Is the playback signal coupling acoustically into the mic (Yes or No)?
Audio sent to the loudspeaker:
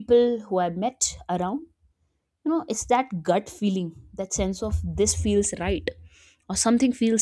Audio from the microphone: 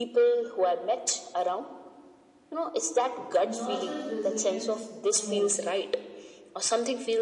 Yes